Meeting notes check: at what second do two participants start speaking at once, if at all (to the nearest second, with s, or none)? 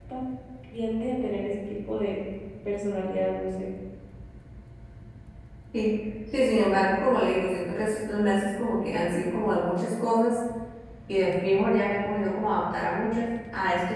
none